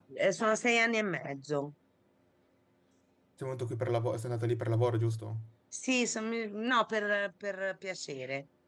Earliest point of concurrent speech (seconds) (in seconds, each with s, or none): none